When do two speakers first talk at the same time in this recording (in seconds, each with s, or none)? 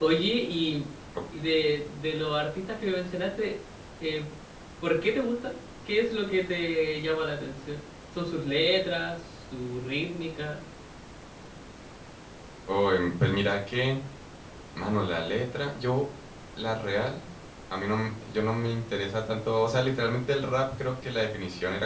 none